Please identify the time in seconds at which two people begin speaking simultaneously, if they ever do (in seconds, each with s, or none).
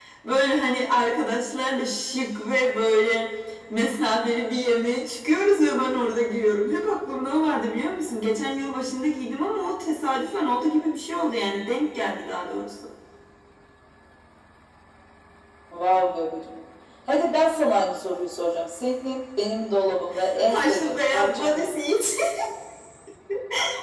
20.5 s